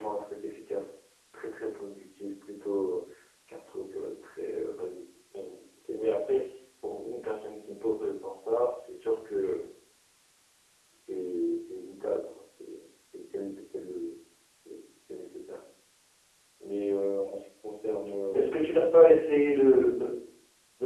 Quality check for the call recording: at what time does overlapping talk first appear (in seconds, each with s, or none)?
none